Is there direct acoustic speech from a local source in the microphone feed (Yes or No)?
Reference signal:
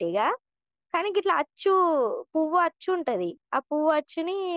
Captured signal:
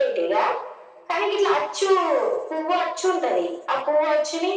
No